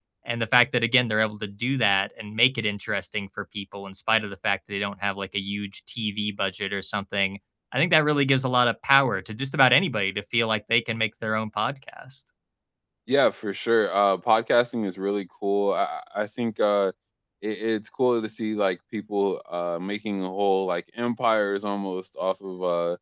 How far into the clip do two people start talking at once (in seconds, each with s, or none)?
none